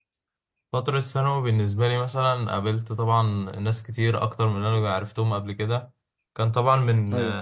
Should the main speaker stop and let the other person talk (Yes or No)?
No